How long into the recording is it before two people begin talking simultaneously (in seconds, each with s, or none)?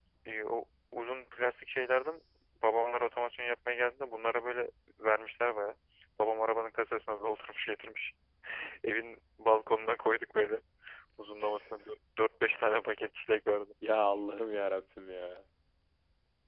none